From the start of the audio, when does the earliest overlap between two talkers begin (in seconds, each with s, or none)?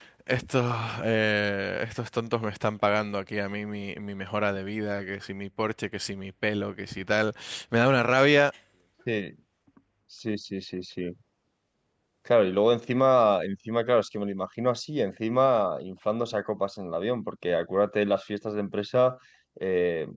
none